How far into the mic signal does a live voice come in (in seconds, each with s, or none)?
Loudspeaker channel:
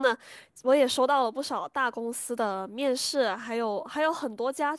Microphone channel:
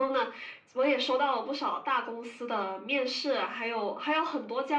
none